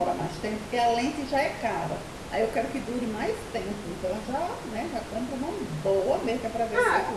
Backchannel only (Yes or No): No